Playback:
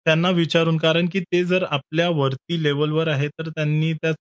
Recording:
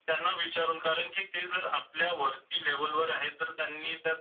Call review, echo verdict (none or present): present